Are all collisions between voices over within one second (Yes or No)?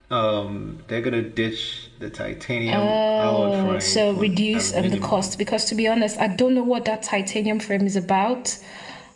No